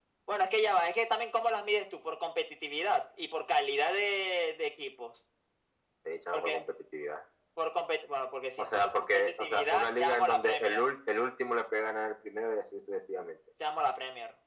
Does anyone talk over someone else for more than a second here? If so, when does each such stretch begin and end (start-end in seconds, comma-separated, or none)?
8.6-10.9